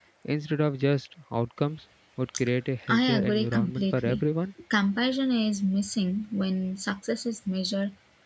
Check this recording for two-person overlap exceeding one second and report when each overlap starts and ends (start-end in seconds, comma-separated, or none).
2.9-4.2